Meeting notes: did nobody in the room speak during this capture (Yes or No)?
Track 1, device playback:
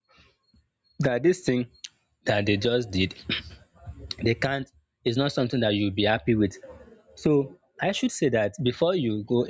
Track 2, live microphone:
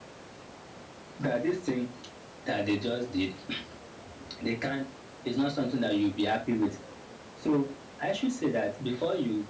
Yes